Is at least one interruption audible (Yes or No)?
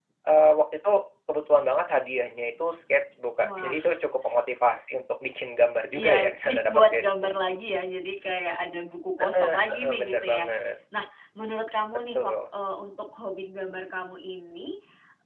Yes